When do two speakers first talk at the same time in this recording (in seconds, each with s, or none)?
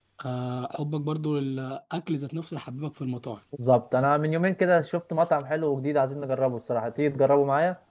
none